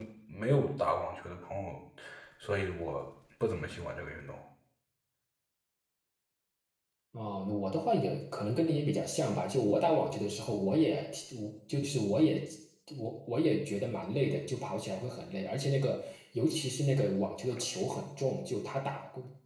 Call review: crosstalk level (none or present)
none